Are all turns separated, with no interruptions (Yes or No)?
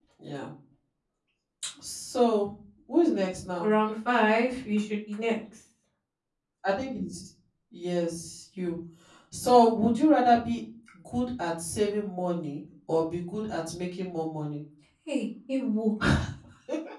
Yes